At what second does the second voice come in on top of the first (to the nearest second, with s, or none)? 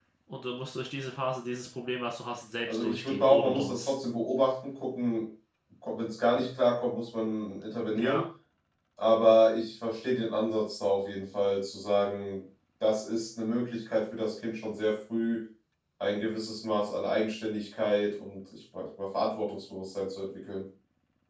3 s